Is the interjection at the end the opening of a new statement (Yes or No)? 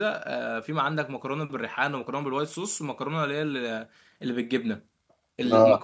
No